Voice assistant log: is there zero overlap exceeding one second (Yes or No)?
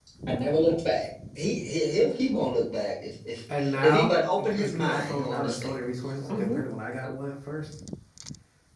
No